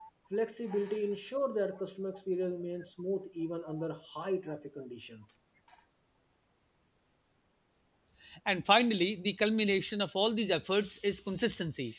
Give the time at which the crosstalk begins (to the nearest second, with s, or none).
none